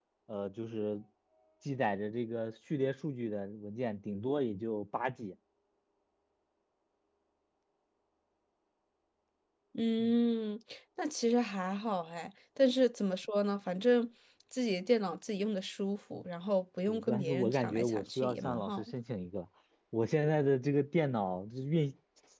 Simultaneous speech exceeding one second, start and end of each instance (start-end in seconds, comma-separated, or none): 16.9-18.7